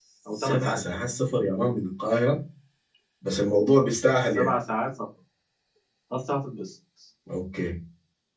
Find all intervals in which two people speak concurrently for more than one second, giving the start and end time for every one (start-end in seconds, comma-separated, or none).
none